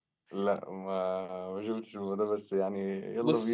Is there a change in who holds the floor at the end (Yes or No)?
Yes